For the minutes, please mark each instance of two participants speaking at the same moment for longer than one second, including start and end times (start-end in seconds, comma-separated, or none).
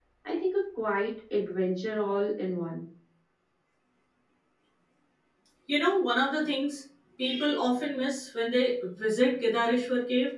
none